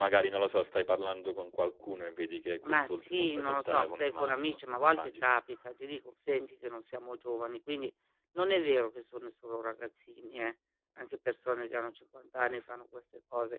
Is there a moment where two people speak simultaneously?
Yes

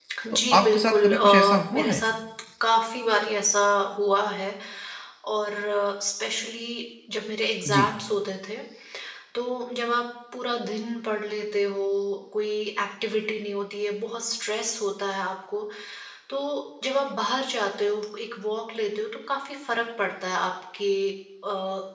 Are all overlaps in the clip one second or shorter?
No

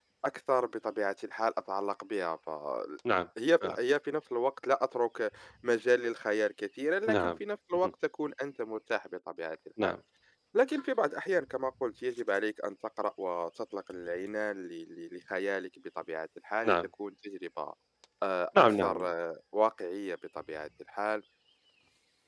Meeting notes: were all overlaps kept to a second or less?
Yes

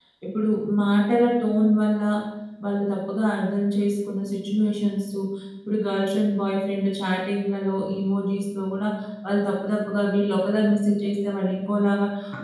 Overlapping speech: No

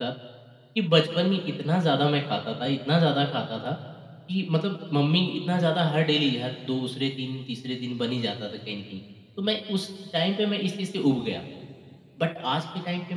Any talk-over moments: No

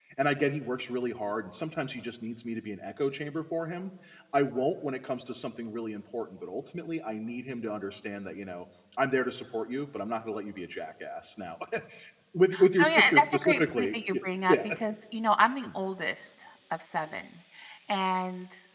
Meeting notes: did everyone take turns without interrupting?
No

